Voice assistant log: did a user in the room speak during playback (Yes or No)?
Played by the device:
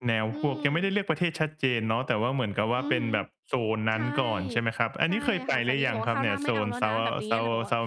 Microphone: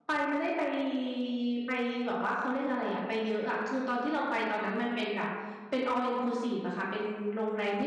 Yes